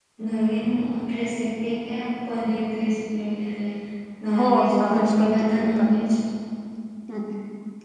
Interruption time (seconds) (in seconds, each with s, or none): 4.4 s